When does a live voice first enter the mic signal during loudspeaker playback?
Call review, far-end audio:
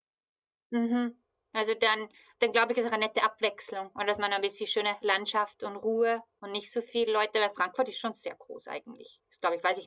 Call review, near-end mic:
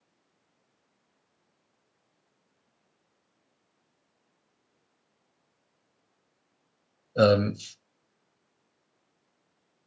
7.2 s

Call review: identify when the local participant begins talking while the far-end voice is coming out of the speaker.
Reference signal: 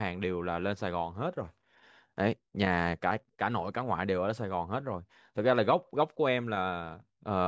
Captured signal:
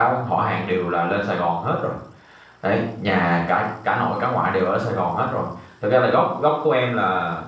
none

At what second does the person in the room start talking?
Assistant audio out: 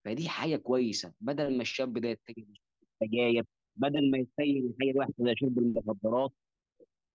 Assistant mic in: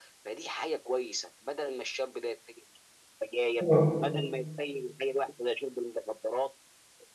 3.6 s

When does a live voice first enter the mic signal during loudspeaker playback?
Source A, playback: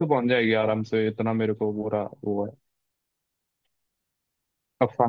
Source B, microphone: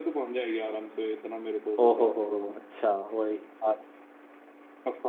1.8 s

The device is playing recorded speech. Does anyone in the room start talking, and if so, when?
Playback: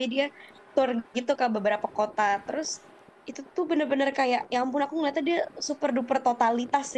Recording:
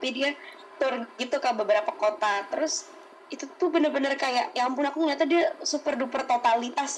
none

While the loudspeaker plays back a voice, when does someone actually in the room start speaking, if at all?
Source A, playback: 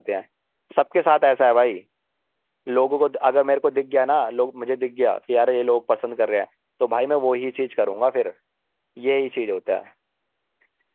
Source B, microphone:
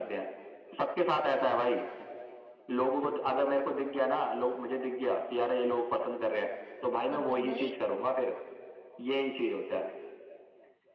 7.1 s

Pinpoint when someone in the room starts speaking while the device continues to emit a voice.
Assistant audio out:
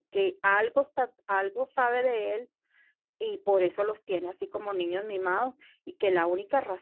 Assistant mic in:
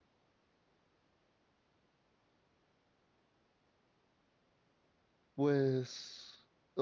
5.3 s

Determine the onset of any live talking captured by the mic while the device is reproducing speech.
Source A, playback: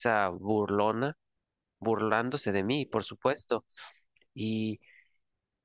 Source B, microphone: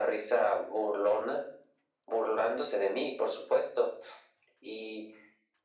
none

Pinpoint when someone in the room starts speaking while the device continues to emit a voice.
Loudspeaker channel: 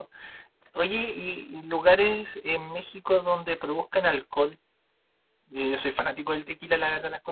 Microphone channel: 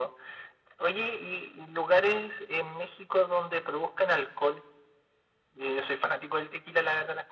none

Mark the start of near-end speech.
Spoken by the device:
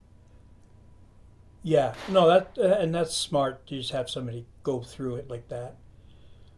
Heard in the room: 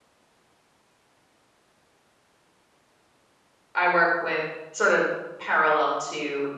3.7 s

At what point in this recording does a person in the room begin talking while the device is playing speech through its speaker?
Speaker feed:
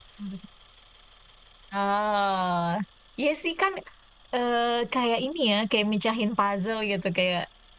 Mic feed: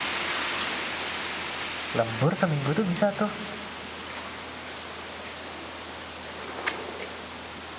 2.0 s

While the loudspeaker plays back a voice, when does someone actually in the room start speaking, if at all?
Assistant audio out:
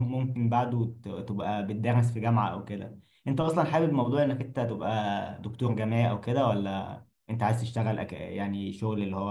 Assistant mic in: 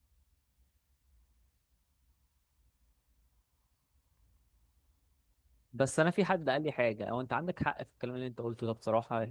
5.7 s

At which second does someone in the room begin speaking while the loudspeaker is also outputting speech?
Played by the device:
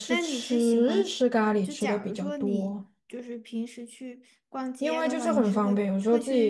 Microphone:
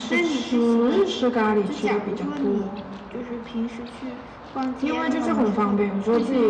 none

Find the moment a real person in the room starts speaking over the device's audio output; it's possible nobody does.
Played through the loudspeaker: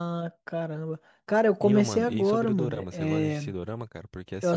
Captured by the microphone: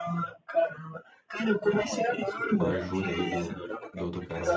2.6 s

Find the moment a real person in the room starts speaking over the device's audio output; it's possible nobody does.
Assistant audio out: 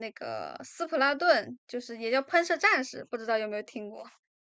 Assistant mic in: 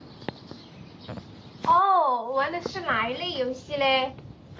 1.6 s

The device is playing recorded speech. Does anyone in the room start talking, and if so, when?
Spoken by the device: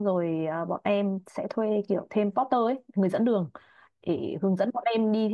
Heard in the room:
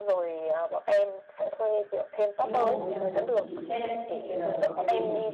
2.4 s

